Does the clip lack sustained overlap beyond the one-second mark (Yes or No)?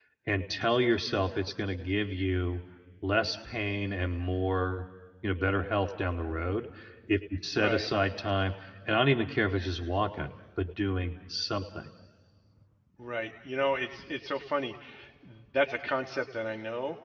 Yes